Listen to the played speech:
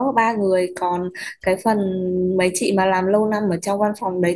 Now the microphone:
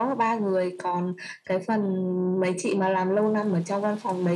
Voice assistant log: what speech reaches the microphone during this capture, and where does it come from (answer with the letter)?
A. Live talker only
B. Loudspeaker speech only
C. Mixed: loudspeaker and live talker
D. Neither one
B